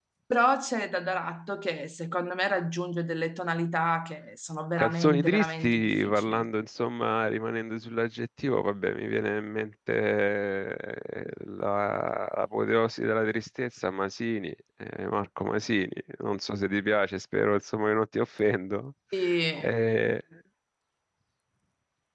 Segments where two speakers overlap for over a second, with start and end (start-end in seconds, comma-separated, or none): 4.8-6.4